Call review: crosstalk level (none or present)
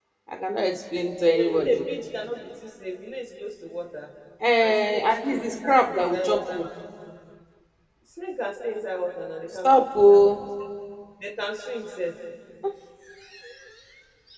present